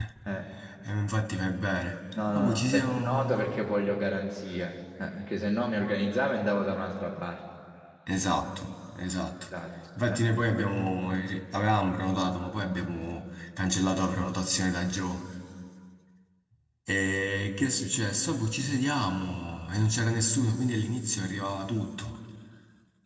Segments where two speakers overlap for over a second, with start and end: 2.3-3.5

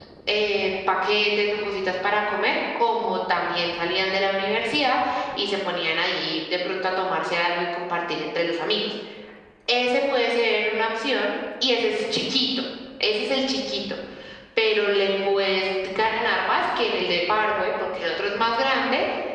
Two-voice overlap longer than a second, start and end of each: none

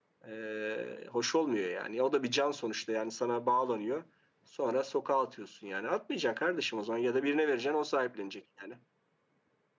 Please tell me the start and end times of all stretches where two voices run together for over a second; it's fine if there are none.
none

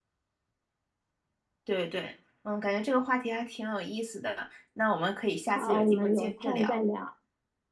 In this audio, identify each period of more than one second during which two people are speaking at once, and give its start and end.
5.5-6.8

